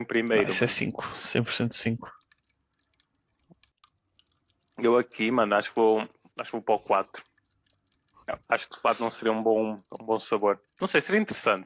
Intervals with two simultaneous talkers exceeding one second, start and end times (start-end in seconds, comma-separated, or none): none